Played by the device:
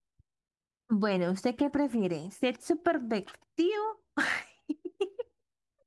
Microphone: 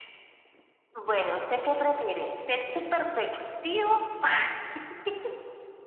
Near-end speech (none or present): none